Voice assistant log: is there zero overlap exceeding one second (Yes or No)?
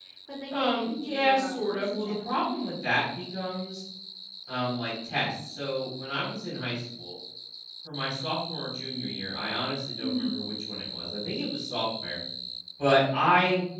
No